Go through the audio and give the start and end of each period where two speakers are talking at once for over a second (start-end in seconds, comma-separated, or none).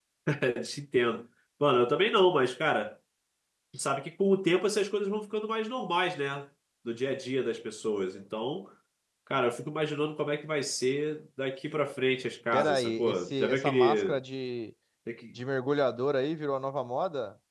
12.5-14.2